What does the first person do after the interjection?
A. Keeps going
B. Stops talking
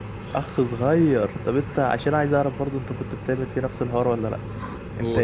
A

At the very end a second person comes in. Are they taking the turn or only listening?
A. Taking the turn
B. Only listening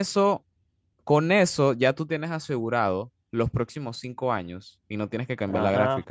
A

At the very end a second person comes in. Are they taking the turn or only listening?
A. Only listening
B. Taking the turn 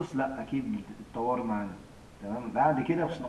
A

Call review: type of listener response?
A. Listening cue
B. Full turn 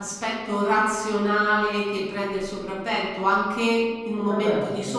A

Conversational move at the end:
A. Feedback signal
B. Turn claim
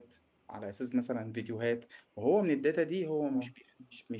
A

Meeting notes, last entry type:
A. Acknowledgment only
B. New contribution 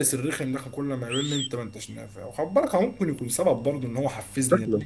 B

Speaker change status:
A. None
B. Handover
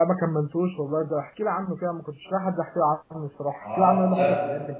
B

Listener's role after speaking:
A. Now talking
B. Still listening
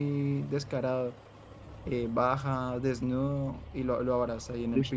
B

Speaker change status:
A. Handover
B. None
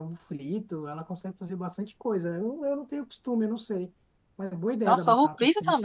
A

